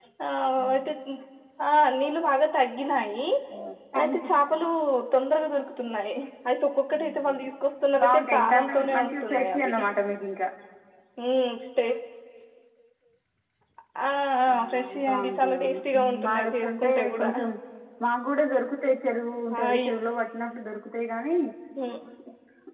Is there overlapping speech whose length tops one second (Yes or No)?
Yes